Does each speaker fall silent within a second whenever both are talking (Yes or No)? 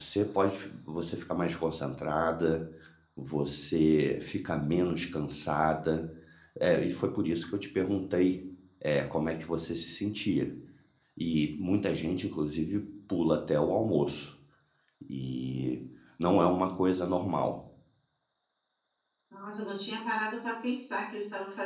Yes